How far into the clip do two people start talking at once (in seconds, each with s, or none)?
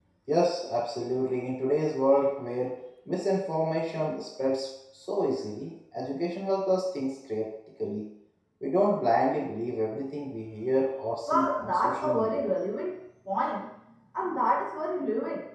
11.3 s